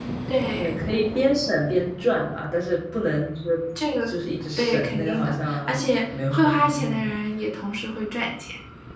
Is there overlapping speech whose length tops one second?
Yes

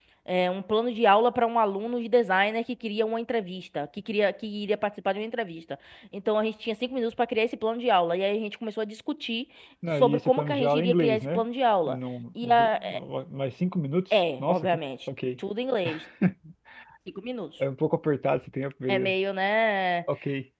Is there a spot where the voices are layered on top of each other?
Yes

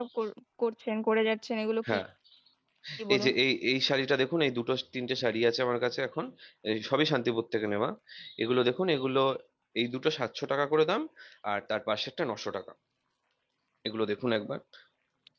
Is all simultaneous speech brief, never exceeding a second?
Yes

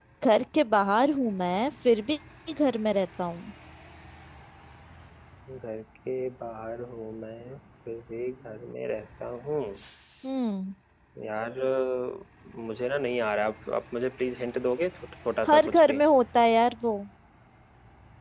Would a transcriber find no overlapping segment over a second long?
Yes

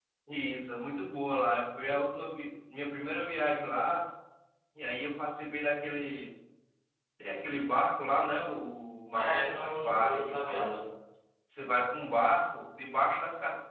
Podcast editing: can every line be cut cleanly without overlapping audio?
No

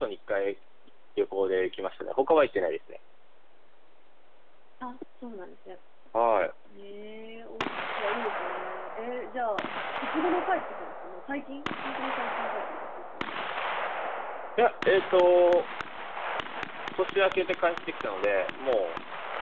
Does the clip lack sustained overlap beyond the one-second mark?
Yes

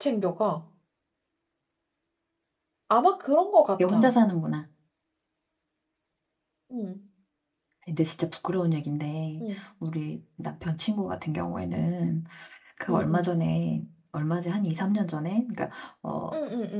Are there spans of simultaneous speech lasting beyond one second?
No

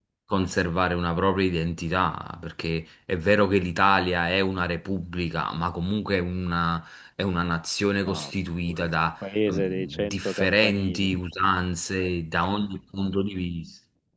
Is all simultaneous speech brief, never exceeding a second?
No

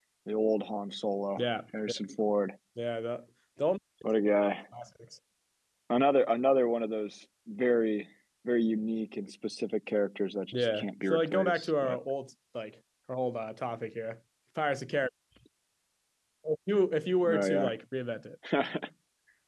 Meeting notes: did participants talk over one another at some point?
Yes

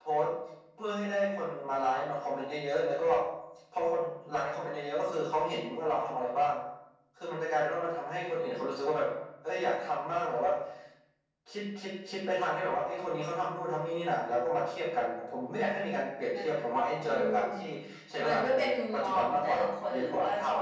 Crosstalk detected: Yes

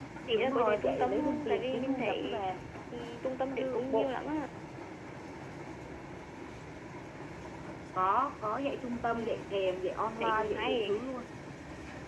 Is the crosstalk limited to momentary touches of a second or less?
No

